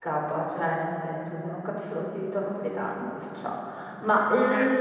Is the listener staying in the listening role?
Yes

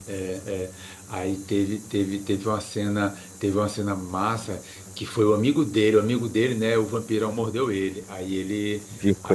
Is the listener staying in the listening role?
Yes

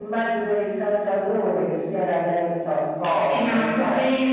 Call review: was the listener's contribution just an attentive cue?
No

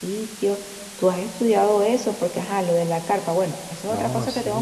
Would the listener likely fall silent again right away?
No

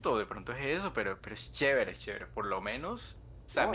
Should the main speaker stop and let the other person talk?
Yes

